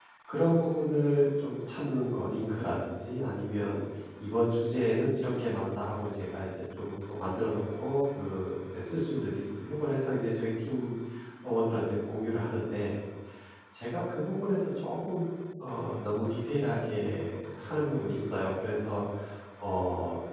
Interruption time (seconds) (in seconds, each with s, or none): none